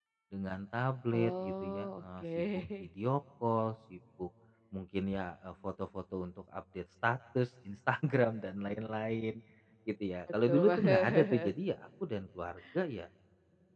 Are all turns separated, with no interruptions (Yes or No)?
No